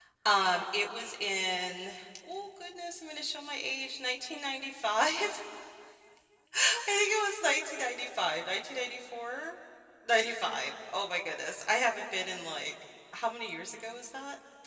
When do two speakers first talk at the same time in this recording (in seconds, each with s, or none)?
none